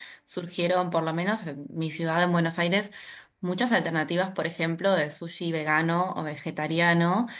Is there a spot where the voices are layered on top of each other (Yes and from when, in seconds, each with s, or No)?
No